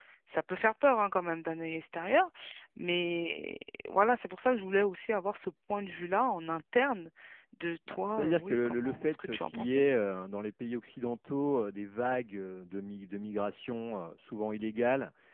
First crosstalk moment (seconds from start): 7.9 s

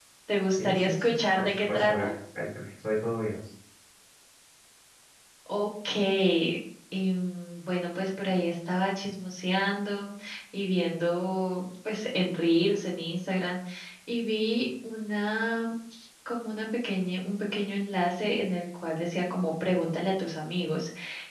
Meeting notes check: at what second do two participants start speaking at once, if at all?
0.5 s

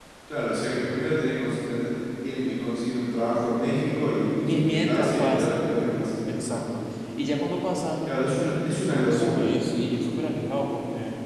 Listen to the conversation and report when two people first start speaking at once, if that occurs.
4.4 s

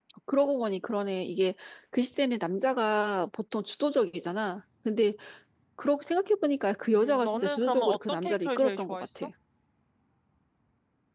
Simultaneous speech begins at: 7.0 s

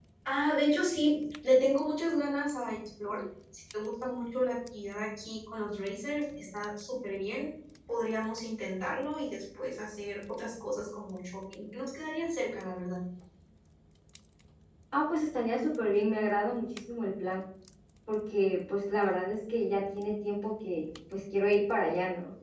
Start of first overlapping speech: none

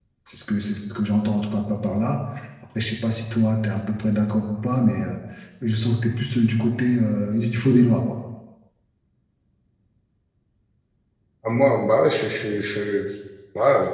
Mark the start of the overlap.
none

